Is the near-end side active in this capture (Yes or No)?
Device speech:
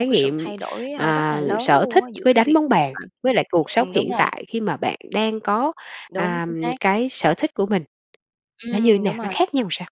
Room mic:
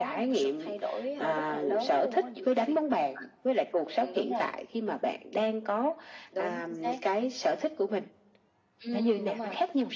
No